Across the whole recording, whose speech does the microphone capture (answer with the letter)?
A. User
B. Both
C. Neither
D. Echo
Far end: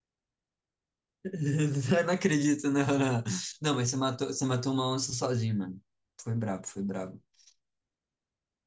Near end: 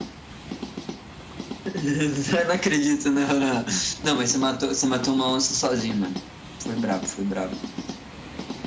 D